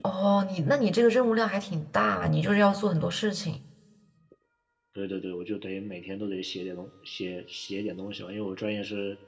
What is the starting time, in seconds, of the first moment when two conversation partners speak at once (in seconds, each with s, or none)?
none